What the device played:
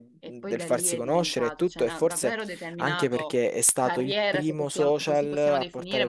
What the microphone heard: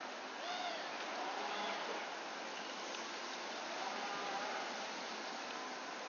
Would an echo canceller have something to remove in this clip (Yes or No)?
No